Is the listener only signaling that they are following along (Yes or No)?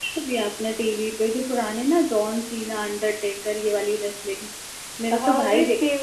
No